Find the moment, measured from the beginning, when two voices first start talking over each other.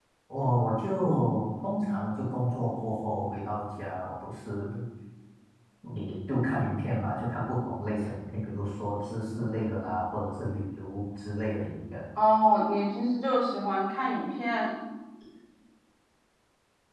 none

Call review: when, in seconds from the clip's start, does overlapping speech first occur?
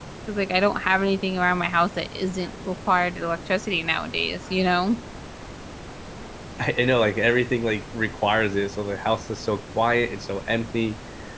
none

